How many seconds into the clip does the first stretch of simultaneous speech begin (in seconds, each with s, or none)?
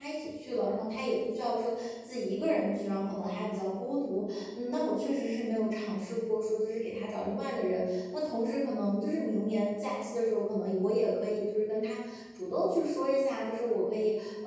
none